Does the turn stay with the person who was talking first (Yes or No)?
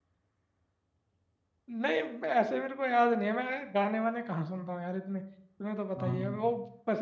Yes